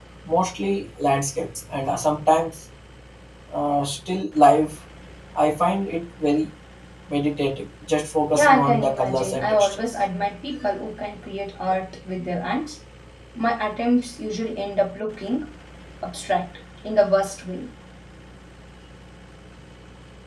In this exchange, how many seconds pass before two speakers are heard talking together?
8.3 s

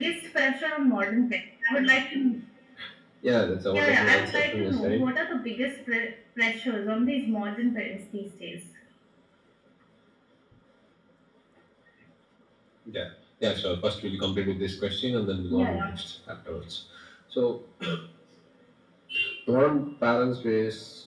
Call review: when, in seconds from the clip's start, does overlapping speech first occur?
3.7 s

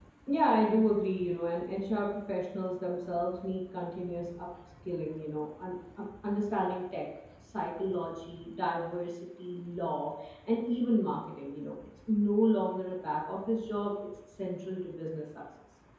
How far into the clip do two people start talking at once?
none

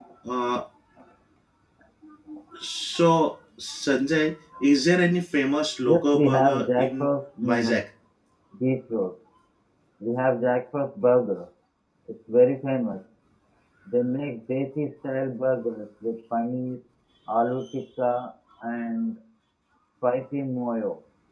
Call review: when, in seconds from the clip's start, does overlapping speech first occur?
5.8 s

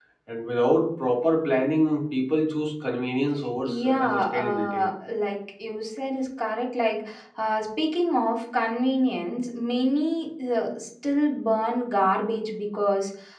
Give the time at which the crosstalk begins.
3.6 s

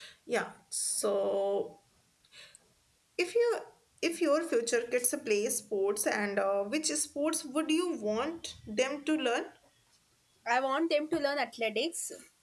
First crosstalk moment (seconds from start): none

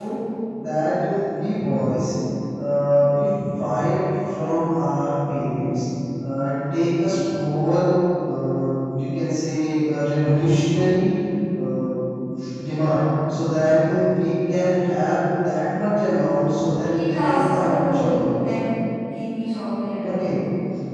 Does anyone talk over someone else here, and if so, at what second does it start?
16.8 s

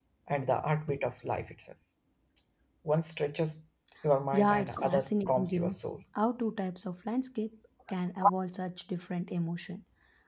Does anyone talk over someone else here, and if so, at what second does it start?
4.3 s

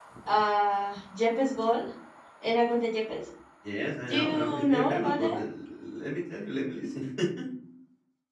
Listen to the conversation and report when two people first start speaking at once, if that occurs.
4.1 s

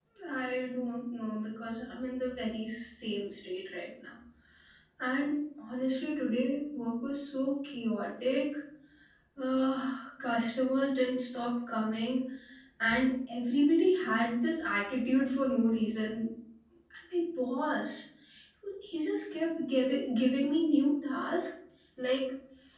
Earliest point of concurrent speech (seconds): none

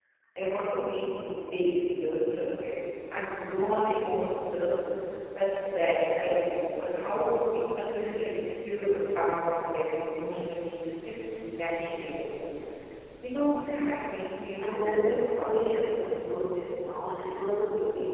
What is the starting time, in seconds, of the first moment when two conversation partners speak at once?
14.6 s

